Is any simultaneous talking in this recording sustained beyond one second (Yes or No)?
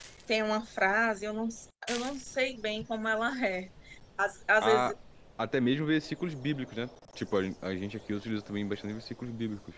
No